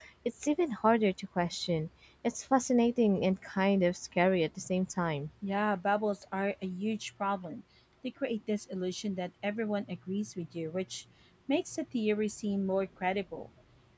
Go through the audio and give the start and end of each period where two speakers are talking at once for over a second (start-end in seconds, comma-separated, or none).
none